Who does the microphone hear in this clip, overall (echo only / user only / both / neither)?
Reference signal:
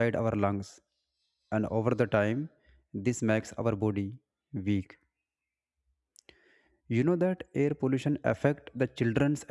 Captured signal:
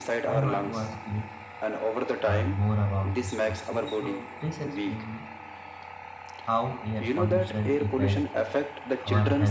both